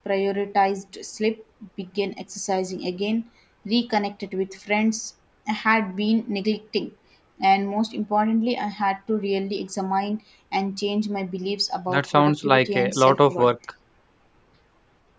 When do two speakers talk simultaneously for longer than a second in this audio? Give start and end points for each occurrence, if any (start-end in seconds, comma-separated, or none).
11.9-13.5